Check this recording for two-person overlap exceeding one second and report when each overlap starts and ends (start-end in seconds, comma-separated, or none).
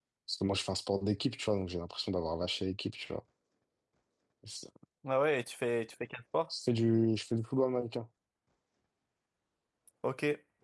none